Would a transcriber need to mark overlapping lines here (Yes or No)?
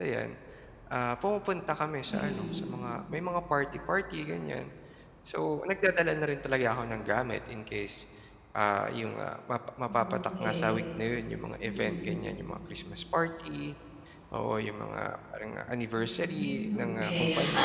Yes